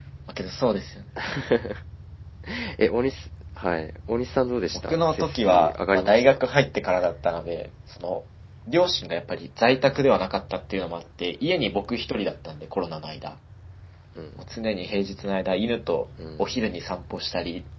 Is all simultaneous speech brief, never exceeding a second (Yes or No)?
No